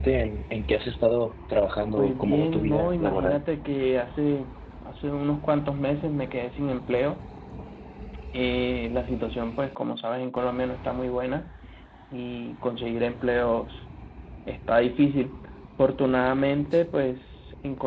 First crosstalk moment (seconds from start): 2 s

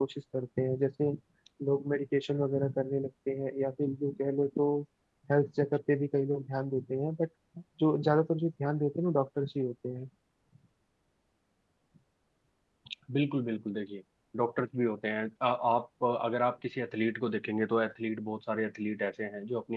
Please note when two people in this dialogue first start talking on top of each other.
none

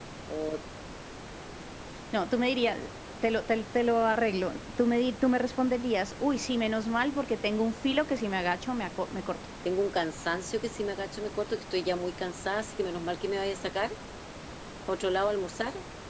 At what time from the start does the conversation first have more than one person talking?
none

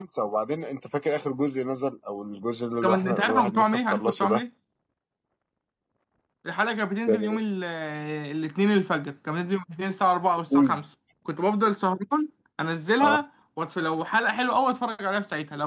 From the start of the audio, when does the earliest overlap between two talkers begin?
3 s

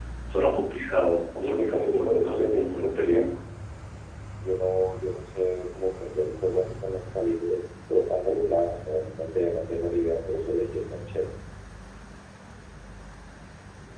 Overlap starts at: 1 s

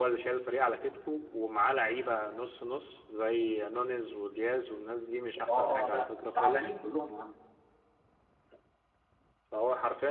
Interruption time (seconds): 5 s

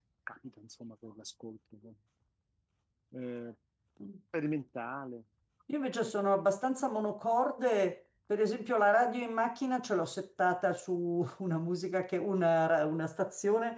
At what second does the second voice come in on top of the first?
none

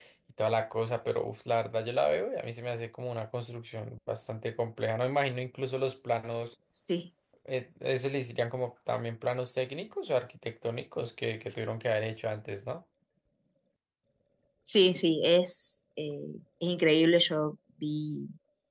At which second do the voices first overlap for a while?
none

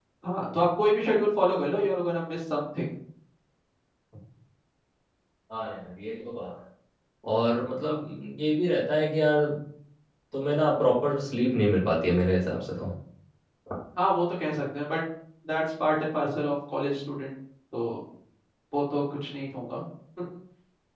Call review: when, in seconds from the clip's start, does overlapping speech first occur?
none

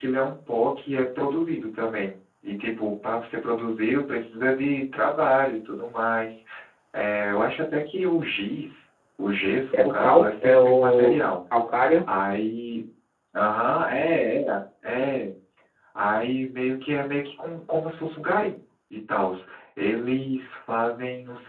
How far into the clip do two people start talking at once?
10 s

